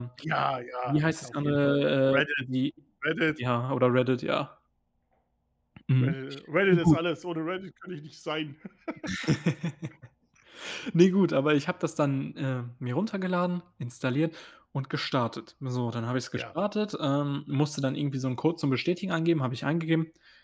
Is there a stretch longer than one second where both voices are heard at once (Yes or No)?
Yes